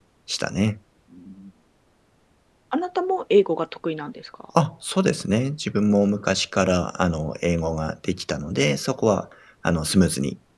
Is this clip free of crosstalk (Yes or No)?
Yes